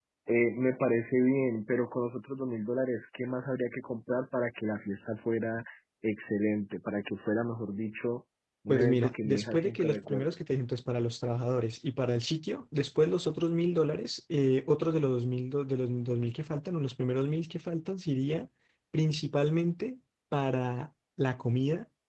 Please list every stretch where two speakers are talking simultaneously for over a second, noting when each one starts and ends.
8.7-10.3

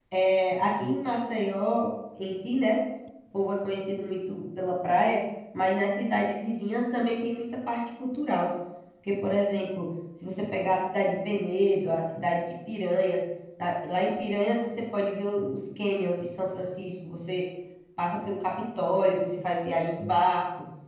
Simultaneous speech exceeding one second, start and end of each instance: none

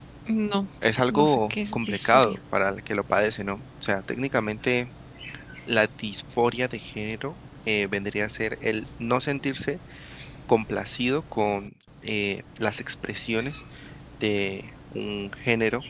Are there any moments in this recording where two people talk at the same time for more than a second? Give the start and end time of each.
1.1-2.4

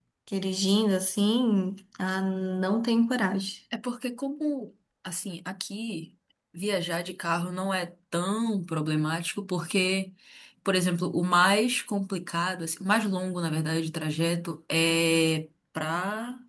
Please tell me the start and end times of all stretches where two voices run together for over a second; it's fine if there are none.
none

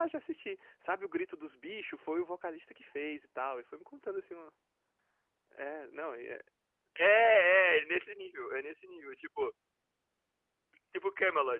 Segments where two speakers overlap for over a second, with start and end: none

